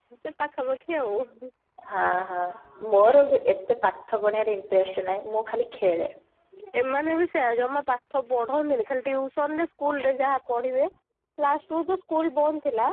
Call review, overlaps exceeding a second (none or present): none